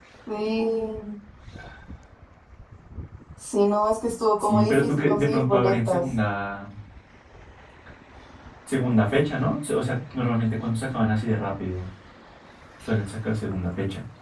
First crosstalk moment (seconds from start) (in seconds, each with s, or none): 4.4 s